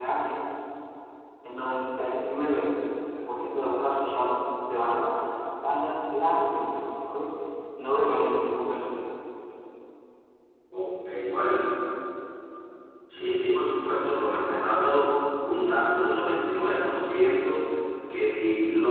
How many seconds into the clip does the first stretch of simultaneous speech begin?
none

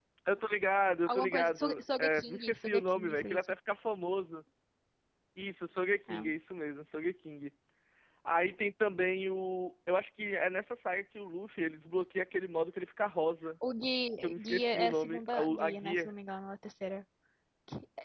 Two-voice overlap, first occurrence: 1.1 s

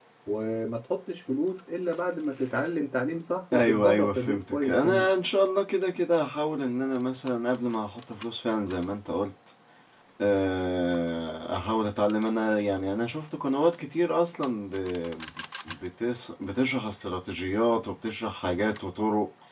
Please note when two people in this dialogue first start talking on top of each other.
3.5 s

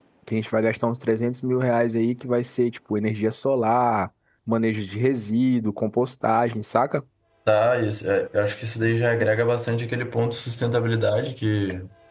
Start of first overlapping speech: none

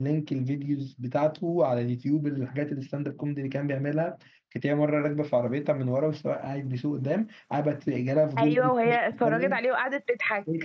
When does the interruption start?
8.4 s

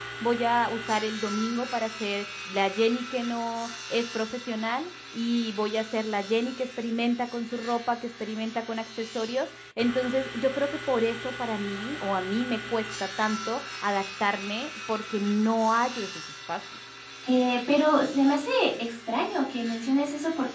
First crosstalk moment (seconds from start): none

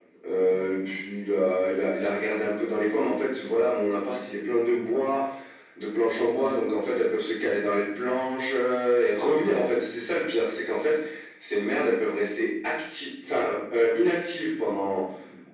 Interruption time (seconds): none

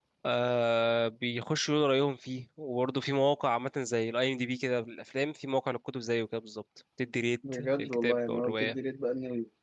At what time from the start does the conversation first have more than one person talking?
7.4 s

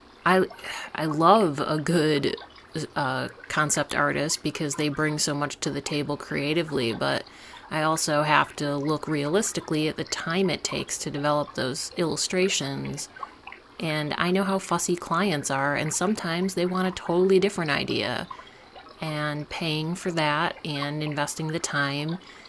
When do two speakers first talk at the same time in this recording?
none

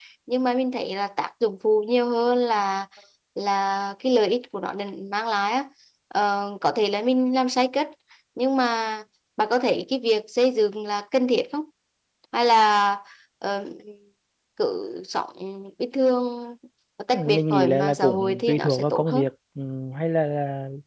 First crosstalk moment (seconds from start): 17.1 s

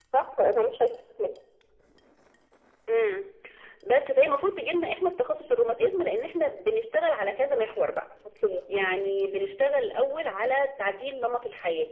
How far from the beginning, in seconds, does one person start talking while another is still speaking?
none

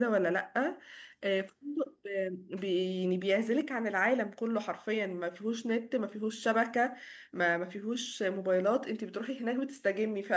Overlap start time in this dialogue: none

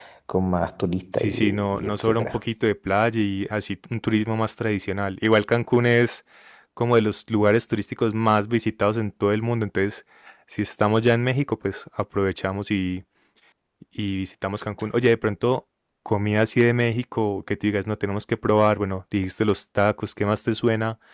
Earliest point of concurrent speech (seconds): 1.1 s

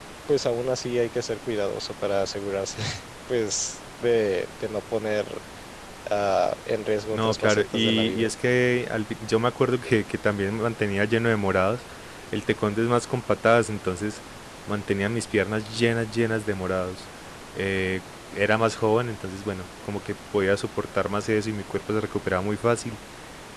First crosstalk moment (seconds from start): 7.1 s

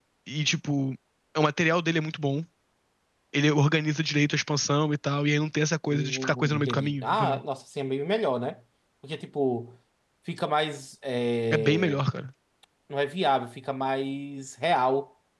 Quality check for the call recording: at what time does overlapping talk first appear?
5.9 s

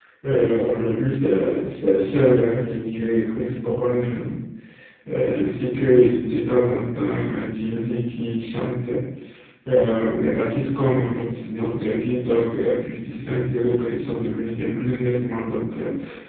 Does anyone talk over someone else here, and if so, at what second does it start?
none

